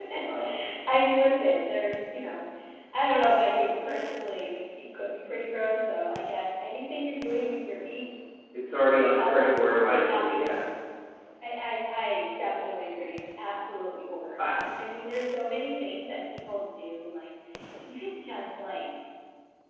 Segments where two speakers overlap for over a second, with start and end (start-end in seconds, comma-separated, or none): 8.9-10.5